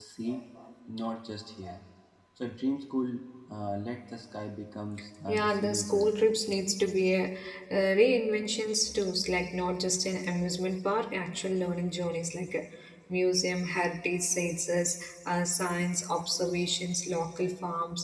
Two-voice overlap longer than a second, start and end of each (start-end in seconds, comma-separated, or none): 5.3-6.5